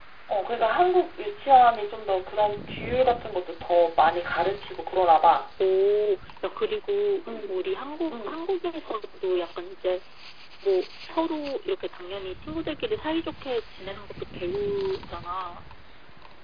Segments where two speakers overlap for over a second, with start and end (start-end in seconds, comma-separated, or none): none